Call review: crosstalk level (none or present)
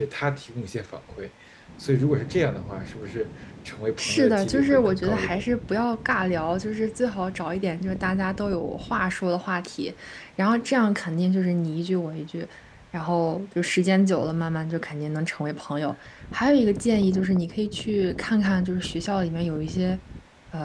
present